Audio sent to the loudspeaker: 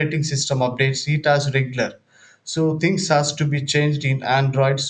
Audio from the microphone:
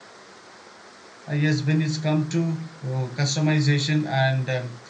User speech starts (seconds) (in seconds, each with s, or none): 1.3 s